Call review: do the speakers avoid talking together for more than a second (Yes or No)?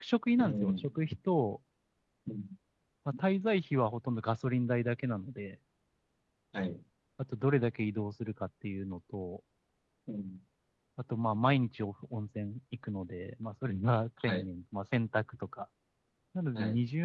Yes